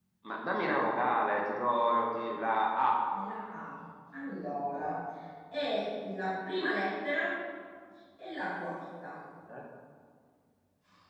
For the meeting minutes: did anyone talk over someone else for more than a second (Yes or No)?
No